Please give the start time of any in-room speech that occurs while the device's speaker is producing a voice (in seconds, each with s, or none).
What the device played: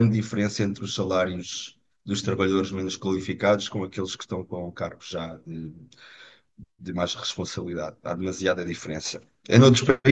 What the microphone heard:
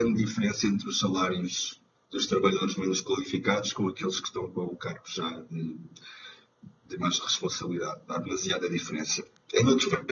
none